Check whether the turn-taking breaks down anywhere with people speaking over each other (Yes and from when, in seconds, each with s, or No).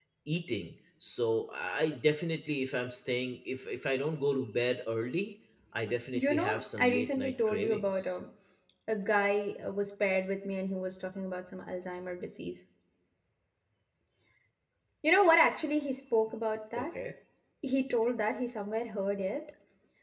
Yes, from 6.1 s